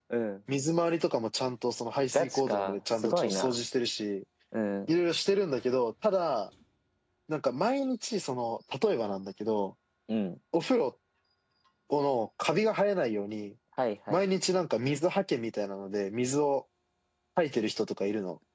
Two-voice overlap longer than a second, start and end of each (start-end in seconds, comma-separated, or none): 2.1-3.5